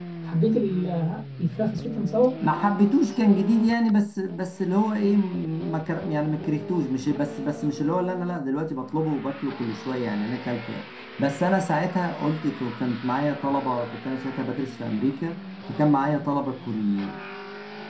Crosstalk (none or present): none